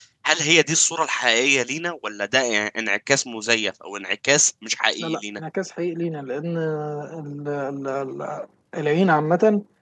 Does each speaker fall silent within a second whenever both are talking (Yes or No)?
Yes